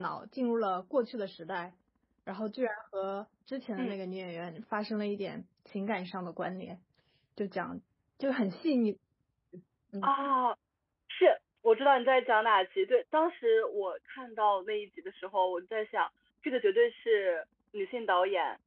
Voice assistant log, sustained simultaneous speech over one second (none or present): none